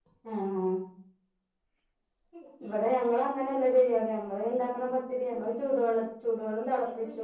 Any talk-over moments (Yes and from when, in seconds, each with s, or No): No